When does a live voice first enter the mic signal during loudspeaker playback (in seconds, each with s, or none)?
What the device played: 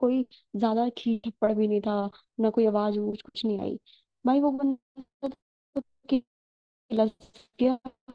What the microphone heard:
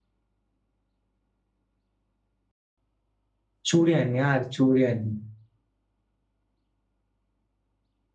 3.7 s